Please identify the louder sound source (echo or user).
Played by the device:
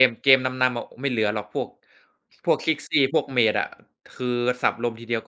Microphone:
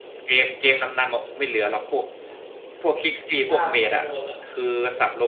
echo